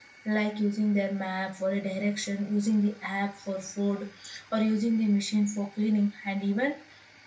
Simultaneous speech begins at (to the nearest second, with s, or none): none